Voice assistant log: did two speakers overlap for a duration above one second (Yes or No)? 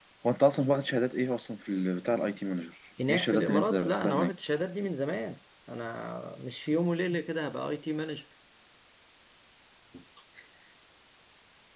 Yes